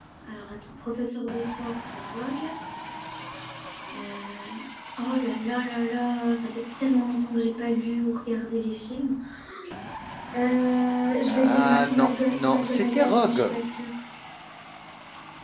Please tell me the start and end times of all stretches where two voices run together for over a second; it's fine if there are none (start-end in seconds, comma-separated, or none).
11.3-13.5